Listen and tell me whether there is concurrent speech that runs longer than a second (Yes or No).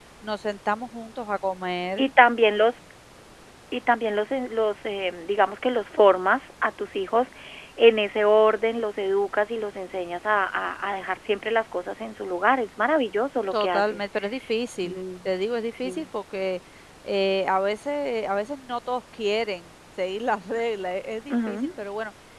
No